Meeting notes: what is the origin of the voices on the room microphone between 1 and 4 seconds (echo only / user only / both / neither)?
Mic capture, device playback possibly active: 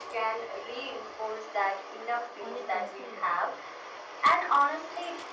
both